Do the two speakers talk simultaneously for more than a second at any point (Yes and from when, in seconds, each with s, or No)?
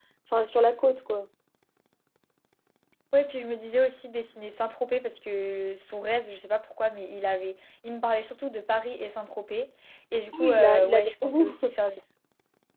Yes, from 10.4 s